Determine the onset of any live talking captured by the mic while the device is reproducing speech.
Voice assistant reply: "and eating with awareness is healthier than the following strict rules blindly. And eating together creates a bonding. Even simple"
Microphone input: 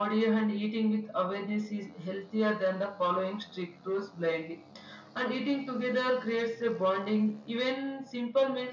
none

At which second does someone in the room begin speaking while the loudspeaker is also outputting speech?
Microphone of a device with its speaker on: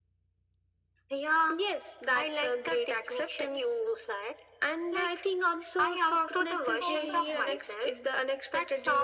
6.8 s

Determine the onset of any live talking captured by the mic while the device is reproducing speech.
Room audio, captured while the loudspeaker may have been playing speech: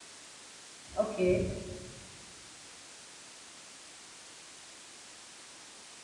0.9 s

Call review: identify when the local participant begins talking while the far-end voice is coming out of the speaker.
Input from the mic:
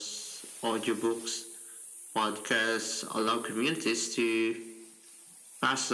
none

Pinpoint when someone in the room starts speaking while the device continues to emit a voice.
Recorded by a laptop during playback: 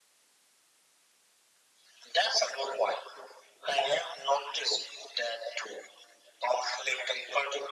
none

